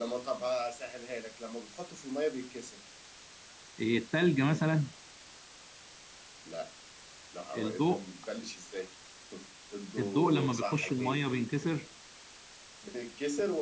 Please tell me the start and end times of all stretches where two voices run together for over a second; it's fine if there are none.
10.0-11.2

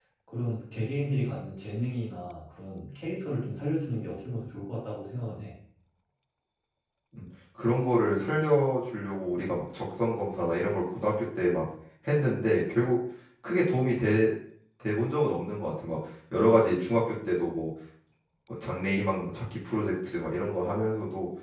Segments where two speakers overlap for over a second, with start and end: none

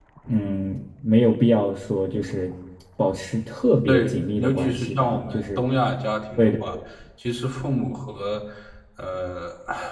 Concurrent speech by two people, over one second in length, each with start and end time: 3.9-5.6

